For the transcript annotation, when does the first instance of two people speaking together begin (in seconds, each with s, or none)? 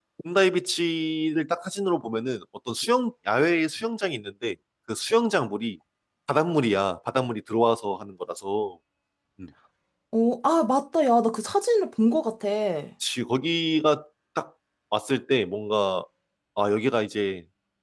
none